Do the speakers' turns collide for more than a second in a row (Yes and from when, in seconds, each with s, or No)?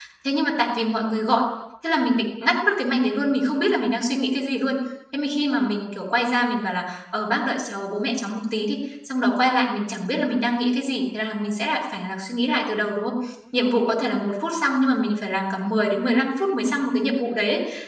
No